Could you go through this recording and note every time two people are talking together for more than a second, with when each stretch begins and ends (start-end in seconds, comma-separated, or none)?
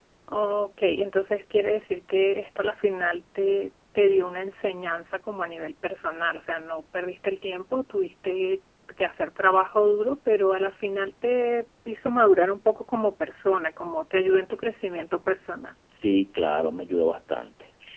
none